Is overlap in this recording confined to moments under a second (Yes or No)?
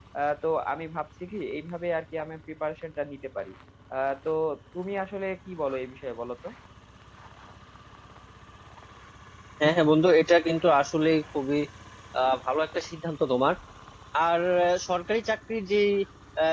Yes